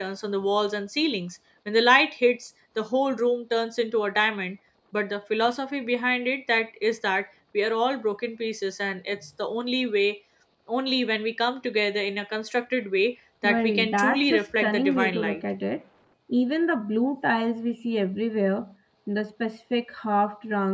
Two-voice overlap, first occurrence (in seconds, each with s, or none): 13.4 s